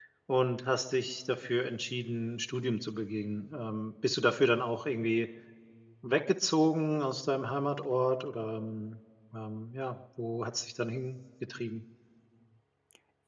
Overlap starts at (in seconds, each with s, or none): none